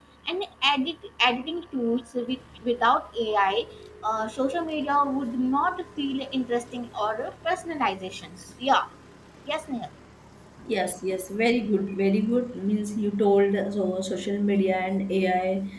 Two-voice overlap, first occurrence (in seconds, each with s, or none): none